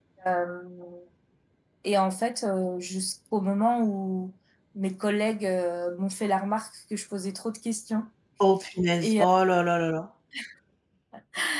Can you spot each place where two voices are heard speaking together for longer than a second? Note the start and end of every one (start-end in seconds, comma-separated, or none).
none